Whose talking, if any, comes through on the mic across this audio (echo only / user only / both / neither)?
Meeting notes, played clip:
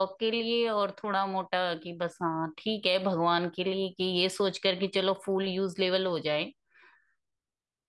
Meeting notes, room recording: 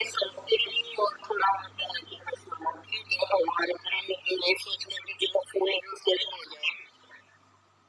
echo only